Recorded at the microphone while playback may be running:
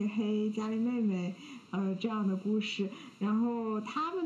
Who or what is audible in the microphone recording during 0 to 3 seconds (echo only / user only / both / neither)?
echo only